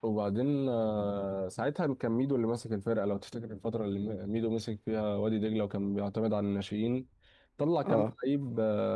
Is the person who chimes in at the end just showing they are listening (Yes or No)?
Yes